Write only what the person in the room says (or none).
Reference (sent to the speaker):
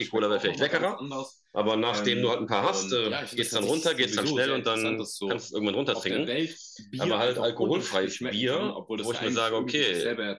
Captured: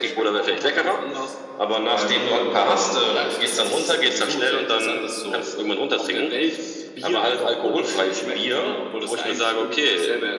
none